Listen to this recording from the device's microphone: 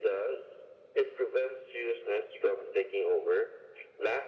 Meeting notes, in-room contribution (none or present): none